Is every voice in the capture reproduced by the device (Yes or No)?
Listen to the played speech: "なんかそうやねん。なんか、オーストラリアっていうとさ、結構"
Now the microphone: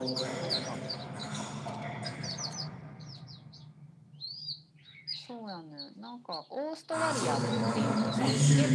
No